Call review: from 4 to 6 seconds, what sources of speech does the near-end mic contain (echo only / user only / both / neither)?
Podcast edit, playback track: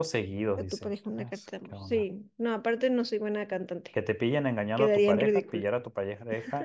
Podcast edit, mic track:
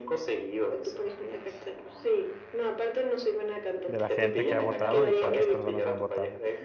both